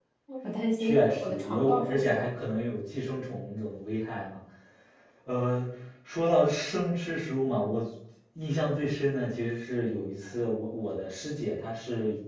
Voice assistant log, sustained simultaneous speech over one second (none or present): present